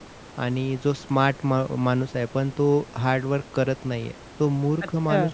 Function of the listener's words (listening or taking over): listening